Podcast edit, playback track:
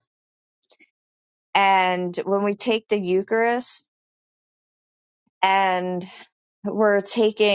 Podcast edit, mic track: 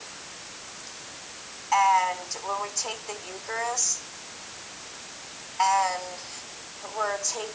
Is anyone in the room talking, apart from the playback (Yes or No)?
No